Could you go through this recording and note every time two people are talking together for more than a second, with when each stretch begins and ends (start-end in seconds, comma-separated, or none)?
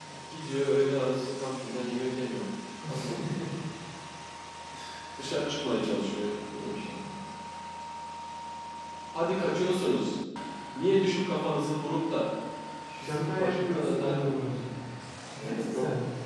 13.0-14.6